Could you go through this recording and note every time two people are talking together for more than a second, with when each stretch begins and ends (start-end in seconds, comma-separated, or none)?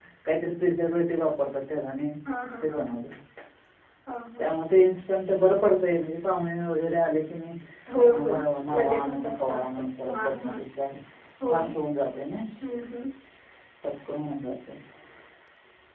8.8-10.6